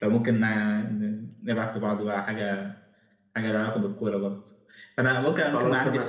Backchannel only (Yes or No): Yes